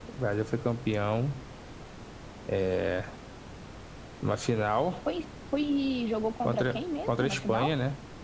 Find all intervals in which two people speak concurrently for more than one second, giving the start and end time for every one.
6.5-7.7

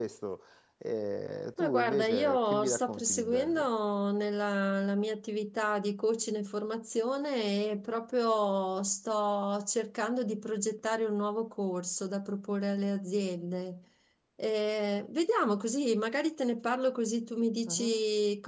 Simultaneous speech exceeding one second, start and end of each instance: 1.6-3.7

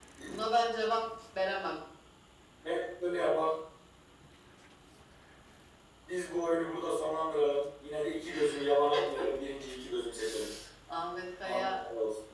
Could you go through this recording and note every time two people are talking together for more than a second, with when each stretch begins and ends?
none

